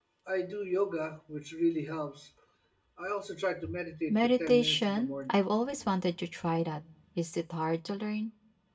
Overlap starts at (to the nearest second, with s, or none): 4 s